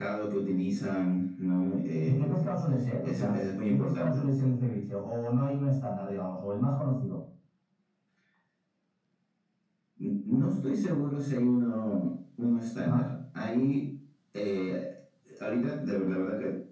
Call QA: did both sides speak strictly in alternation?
No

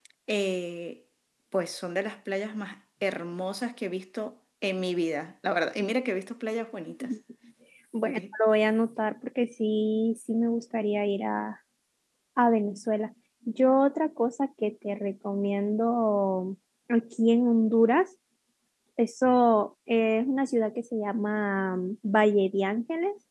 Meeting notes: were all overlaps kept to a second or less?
Yes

